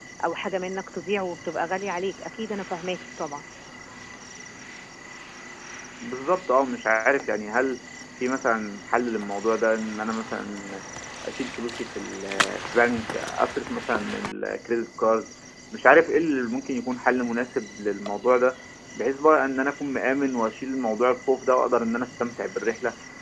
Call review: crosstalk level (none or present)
none